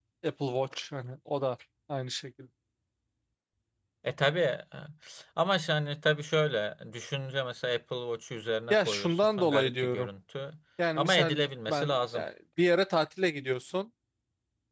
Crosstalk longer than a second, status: present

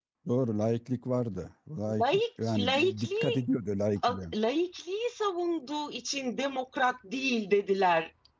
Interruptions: present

